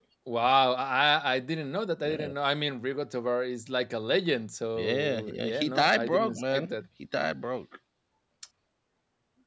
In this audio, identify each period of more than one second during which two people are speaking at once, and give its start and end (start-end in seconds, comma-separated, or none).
4.8-6.7